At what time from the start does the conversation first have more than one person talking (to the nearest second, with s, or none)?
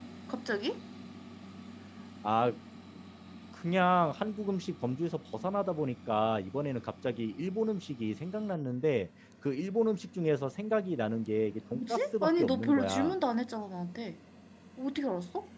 12 s